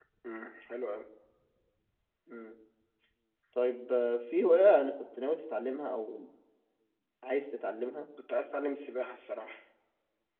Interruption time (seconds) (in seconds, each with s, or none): none